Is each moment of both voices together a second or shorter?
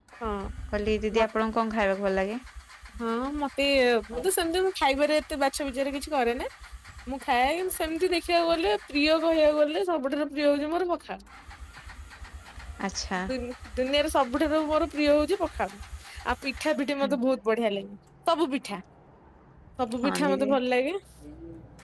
Yes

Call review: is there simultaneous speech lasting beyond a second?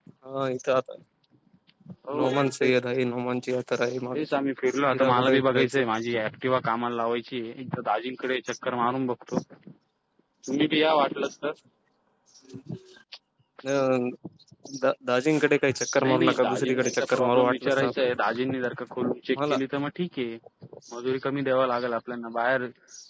Yes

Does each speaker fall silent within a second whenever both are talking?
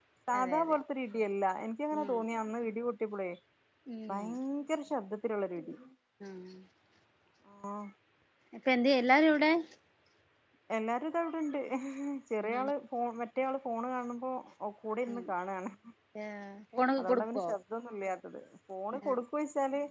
Yes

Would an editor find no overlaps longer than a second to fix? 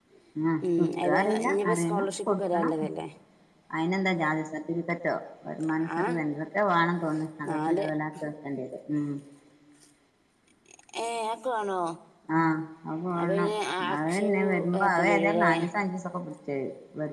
No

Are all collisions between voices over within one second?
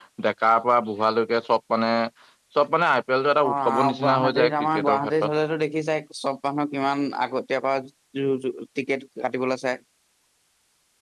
No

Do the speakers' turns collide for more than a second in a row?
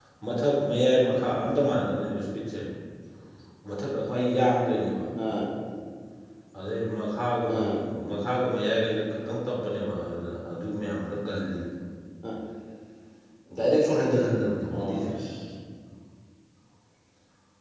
No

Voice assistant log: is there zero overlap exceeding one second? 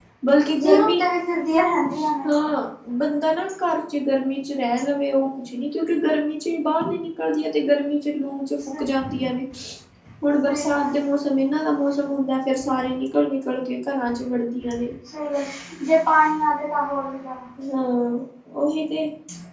Yes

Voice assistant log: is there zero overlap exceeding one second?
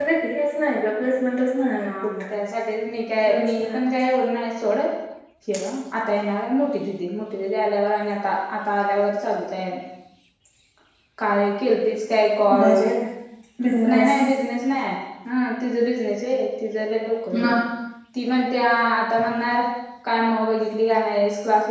Yes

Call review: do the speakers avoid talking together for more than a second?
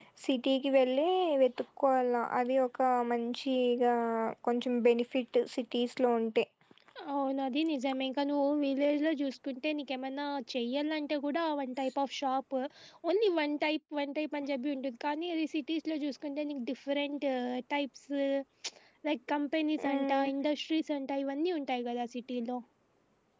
Yes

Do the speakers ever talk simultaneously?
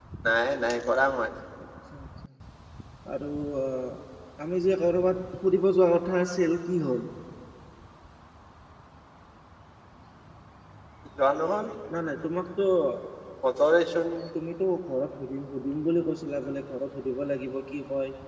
No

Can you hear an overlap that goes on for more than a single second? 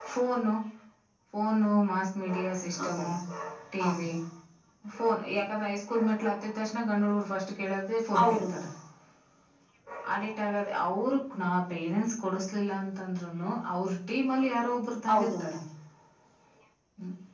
No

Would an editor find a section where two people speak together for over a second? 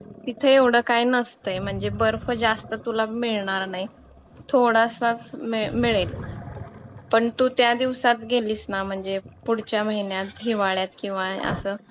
No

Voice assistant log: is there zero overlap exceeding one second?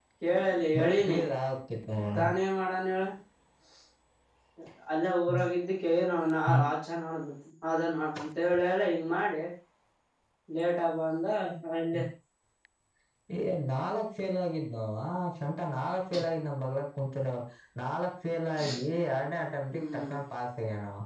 Yes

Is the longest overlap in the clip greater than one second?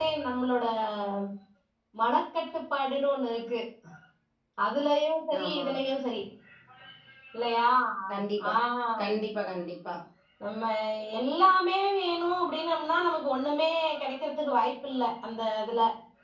No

